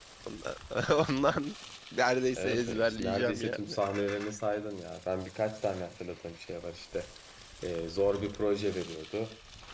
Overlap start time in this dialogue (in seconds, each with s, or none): 2.4 s